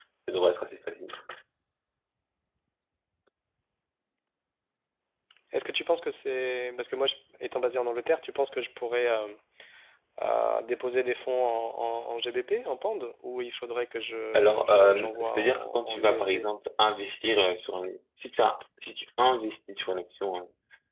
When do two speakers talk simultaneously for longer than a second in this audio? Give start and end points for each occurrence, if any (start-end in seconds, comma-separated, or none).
14.3-16.4